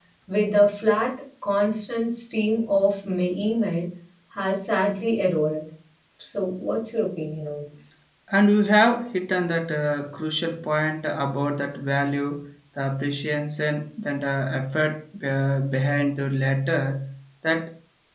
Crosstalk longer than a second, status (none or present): none